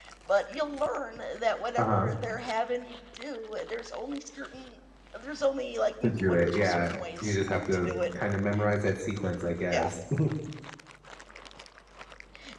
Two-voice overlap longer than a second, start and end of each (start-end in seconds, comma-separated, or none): 6.0-7.4